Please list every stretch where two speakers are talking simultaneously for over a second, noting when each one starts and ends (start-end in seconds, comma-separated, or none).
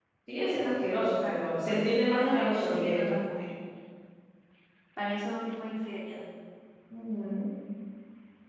1.3-3.0